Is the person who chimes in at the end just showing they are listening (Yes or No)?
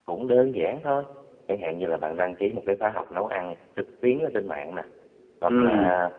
Yes